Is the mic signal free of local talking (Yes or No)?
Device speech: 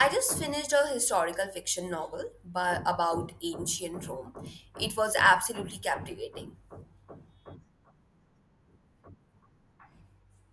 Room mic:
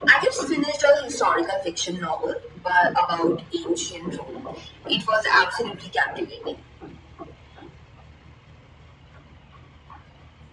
Yes